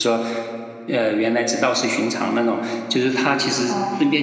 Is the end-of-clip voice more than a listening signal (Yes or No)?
No